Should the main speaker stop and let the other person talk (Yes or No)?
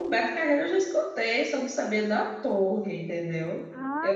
Yes